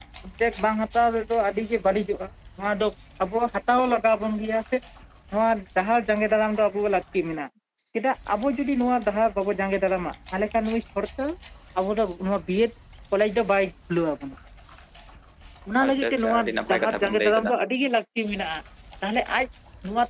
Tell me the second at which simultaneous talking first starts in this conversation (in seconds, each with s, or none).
15.8 s